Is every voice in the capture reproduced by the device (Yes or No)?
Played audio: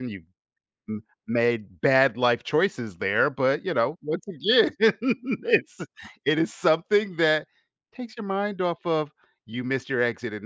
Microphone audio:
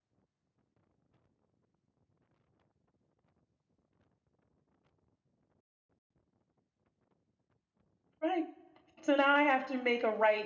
No